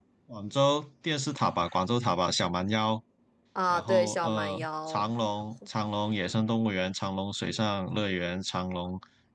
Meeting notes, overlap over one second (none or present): present